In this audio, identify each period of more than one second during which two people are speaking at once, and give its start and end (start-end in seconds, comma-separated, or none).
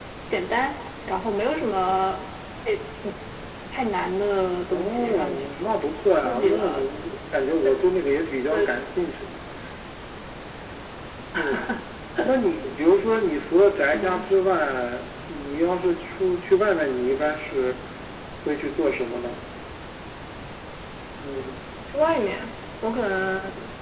4.7-6.9